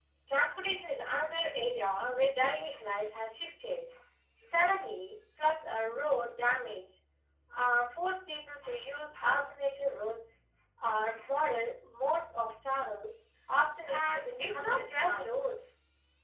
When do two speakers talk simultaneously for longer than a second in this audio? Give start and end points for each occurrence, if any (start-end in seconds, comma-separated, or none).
13.9-15.4